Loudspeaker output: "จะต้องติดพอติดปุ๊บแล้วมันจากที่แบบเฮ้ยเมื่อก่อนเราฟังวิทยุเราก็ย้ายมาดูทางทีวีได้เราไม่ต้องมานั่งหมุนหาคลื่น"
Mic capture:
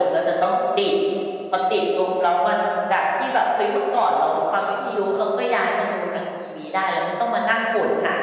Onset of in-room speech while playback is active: none

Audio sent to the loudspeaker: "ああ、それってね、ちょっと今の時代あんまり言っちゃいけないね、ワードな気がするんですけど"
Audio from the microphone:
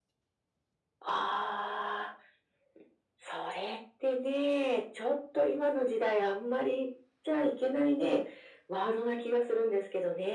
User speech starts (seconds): none

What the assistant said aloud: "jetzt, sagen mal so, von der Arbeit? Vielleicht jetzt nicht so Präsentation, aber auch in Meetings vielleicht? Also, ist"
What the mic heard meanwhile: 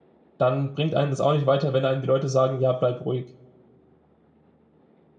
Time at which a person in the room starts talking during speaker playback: 0.4 s

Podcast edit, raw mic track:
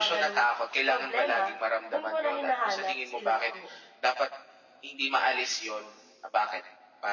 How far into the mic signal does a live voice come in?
none

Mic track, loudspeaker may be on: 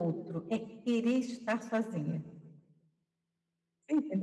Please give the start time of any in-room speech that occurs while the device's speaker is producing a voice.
none

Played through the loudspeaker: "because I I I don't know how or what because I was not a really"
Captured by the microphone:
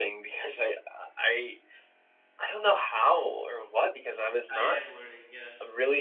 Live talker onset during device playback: 4.5 s

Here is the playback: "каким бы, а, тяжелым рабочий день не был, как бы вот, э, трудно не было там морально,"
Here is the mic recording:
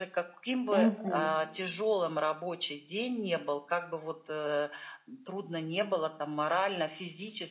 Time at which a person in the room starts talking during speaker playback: 0.7 s

